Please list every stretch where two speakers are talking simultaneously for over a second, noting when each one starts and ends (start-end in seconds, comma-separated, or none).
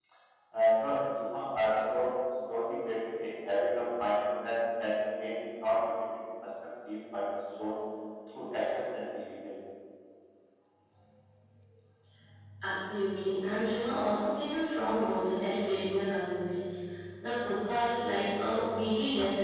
none